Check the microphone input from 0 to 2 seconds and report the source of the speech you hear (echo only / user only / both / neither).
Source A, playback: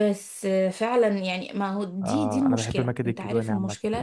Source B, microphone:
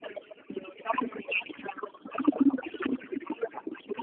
echo only